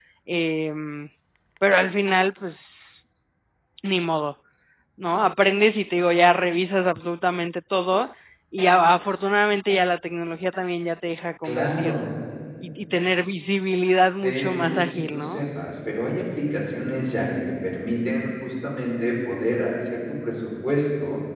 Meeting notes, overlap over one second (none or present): present